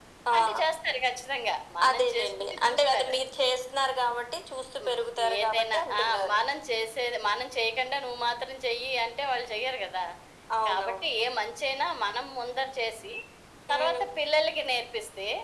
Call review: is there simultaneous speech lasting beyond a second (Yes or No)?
Yes